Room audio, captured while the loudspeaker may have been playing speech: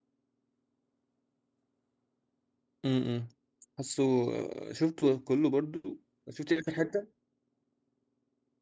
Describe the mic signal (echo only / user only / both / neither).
user only